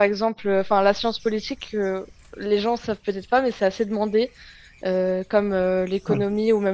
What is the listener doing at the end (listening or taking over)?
listening